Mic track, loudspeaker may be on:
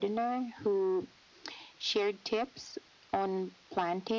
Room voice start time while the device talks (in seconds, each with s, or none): none